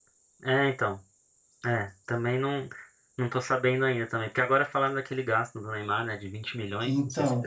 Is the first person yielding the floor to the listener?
Yes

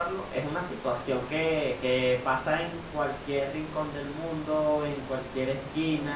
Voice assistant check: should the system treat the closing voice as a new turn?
No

